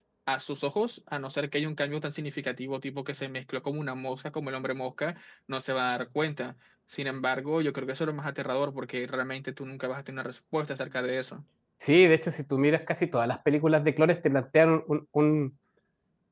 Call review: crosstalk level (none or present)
none